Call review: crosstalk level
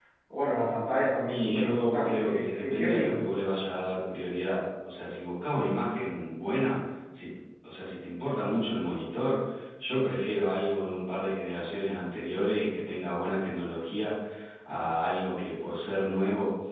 present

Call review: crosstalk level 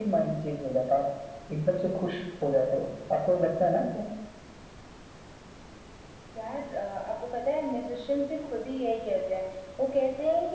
none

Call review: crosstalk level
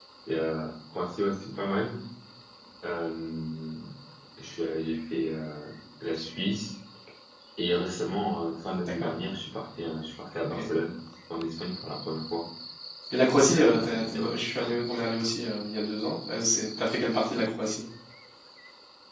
present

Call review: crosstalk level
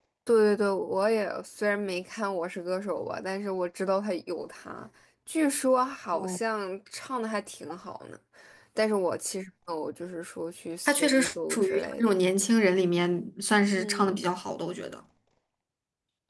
present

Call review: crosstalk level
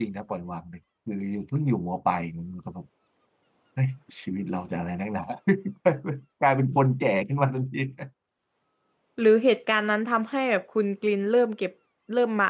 none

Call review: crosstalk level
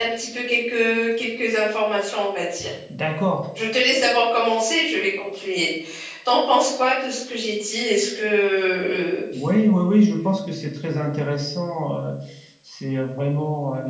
none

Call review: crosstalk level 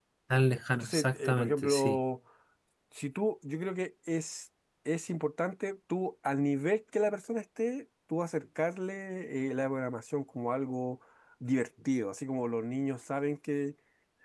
present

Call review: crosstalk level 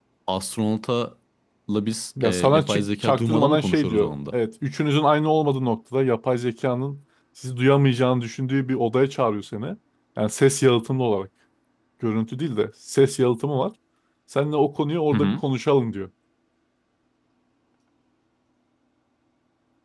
present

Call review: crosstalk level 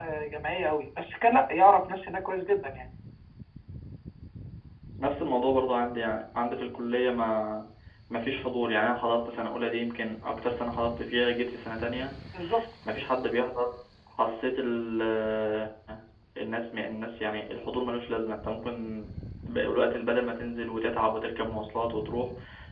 none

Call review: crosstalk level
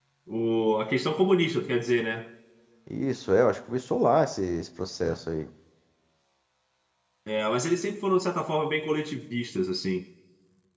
none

